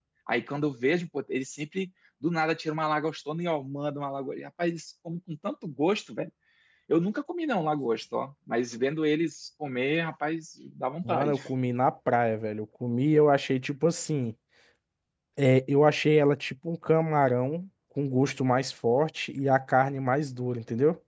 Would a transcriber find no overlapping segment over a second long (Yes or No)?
Yes